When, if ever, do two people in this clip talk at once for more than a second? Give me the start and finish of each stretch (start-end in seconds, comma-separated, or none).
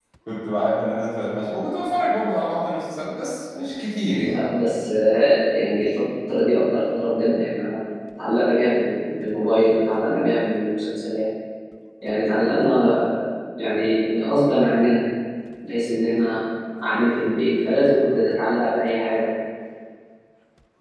none